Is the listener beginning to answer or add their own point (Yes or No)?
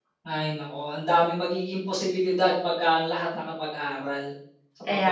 Yes